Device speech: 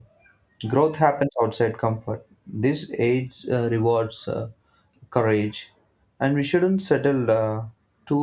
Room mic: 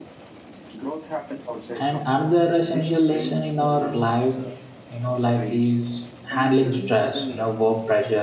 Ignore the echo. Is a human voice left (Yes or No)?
Yes